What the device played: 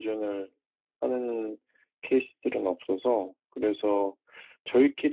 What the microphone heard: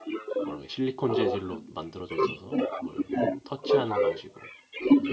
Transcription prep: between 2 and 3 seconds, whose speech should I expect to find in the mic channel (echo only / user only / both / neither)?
both